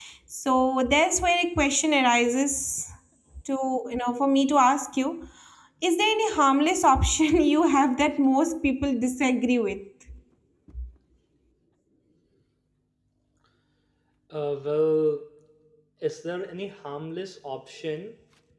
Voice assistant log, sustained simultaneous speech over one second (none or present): none